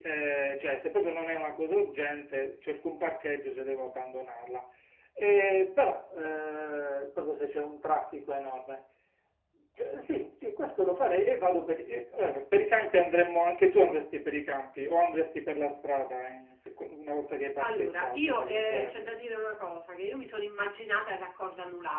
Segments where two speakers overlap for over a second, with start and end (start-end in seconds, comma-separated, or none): 17.6-18.9